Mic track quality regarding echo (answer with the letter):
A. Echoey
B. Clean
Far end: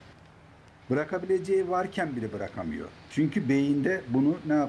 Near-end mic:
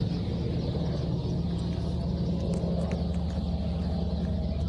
B